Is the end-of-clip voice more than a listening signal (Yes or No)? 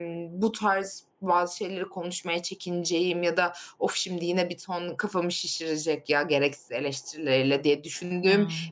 No